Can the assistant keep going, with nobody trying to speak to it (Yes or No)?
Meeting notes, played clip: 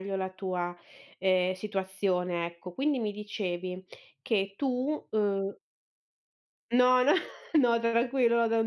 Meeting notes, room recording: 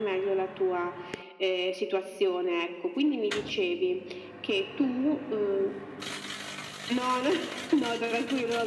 Yes